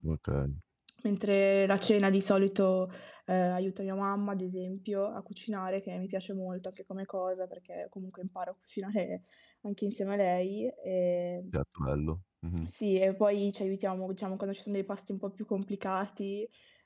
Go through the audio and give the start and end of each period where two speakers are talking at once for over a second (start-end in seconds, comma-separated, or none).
none